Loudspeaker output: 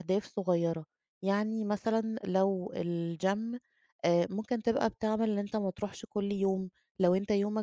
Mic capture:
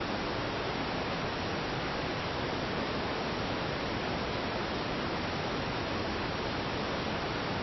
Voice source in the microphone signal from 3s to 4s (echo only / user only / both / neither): neither